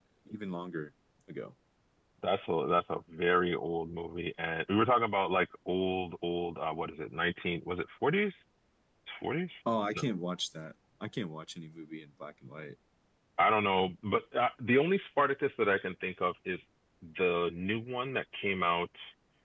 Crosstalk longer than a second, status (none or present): none